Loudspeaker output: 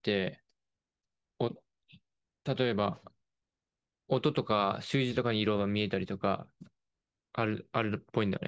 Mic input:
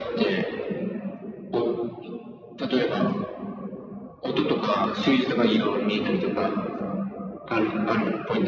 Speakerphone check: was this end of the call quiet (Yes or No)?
Yes